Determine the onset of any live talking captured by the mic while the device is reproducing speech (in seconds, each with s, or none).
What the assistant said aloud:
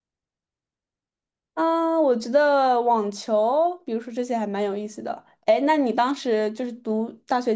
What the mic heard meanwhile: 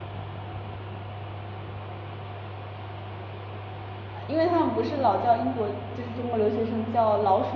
4.1 s